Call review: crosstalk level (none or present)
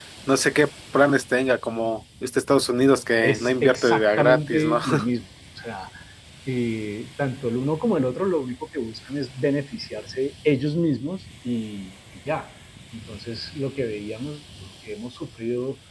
present